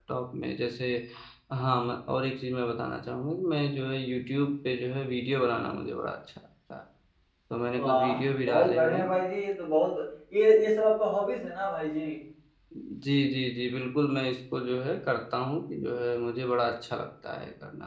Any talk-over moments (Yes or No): Yes